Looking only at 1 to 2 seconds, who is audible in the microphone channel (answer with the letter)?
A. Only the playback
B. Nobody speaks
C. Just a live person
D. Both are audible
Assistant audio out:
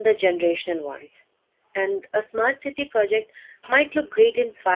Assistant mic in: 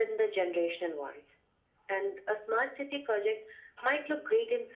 A